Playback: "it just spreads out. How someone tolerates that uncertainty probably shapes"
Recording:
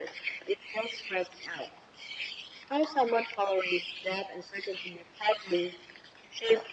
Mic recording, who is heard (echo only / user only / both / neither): echo only